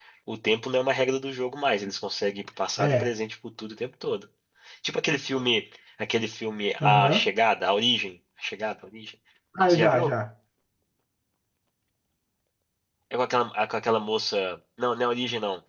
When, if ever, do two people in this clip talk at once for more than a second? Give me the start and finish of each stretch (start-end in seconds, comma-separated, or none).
none